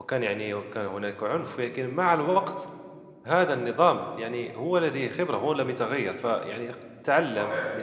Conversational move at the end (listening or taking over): listening